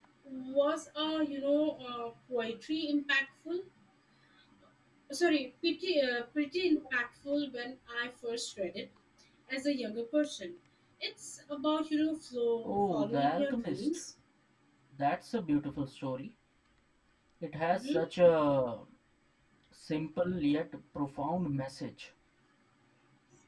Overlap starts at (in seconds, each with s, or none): 12.6 s